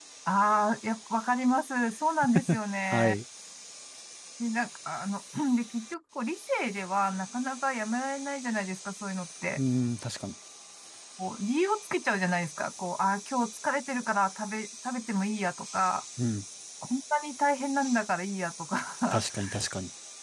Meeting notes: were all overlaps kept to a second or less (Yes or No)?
Yes